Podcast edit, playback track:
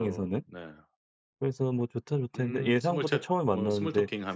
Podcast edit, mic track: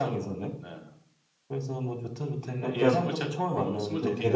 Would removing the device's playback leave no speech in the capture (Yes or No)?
No